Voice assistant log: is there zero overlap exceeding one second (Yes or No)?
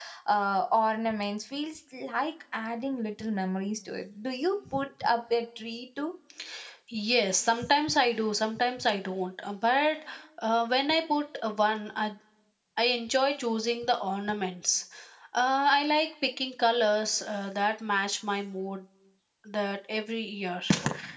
Yes